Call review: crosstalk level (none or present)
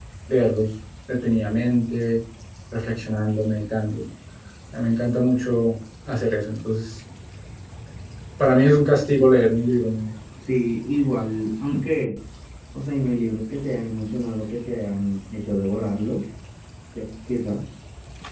none